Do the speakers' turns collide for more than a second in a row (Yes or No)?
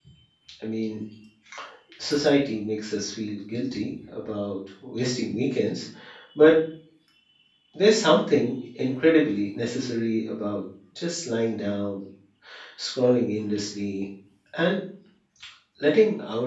No